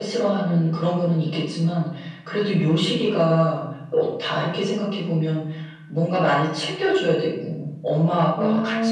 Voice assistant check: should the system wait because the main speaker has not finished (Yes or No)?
Yes